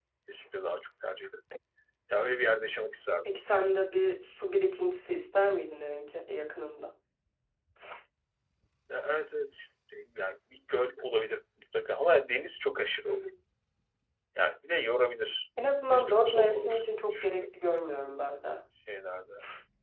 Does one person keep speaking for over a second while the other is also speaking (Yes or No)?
Yes